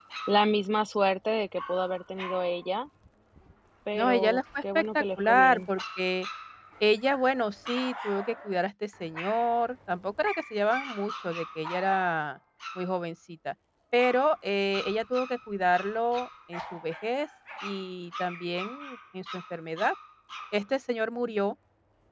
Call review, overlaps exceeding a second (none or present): present